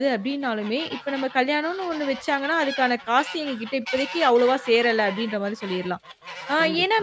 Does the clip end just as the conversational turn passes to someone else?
No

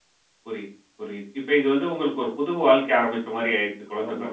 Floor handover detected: Yes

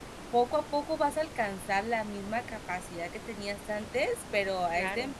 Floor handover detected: No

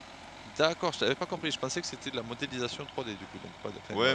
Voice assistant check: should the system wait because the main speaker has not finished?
No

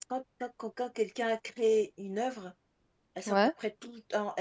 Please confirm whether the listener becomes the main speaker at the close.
No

